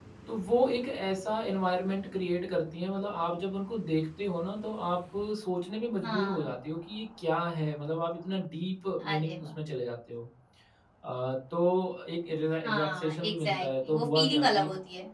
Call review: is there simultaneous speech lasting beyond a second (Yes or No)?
Yes